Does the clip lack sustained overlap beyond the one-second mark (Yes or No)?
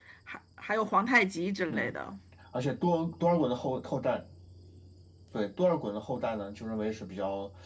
Yes